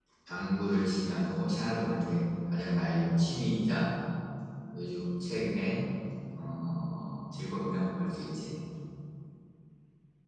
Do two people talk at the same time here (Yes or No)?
No